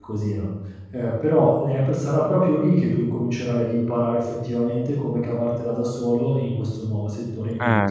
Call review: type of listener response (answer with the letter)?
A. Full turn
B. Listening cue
A